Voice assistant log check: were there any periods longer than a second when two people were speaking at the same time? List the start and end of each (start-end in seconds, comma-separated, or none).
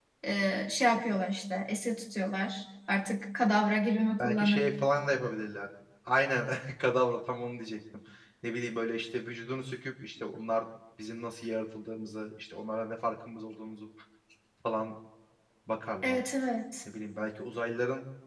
none